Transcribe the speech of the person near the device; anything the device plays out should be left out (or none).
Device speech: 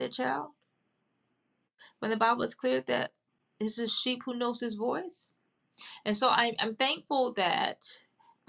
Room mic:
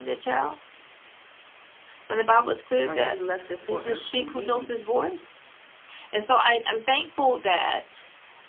Like He left it for us to read